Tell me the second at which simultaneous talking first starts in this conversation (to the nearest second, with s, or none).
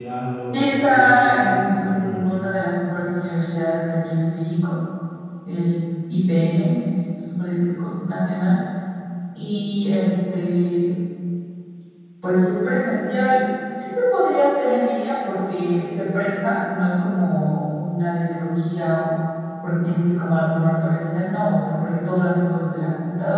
1 s